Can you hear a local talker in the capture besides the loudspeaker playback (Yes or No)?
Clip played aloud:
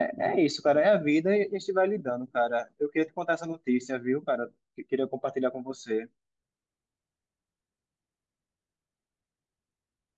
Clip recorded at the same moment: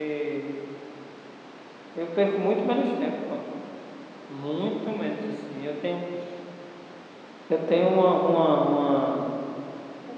Yes